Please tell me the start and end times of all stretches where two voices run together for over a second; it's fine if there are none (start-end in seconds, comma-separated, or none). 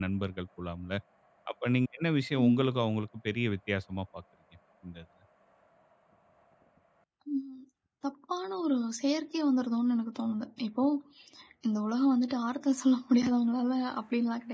none